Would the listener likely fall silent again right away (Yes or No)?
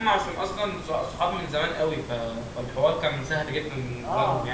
No